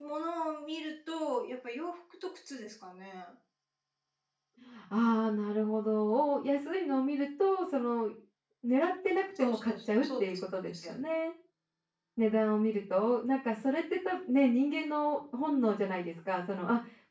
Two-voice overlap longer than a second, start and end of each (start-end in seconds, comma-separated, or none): 9.4-11.0